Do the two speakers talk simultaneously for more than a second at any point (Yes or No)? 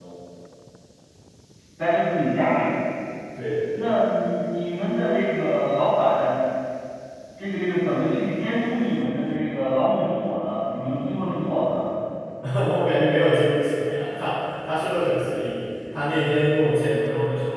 No